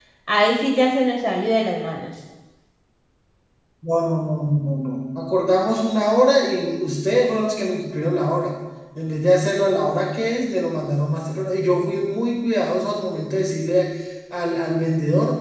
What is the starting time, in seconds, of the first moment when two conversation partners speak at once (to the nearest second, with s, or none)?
none